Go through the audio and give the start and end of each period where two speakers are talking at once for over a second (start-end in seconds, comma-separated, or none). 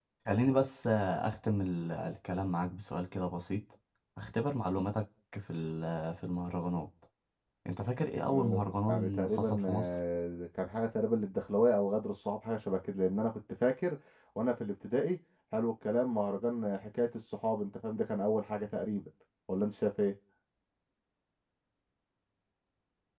8.3-9.9